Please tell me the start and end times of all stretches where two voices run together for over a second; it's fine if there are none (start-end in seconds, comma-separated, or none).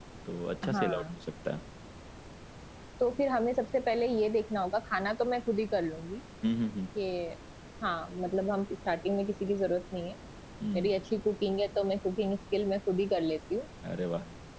none